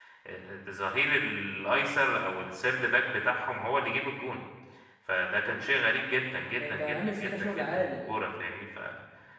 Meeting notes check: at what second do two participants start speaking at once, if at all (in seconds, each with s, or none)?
6.6 s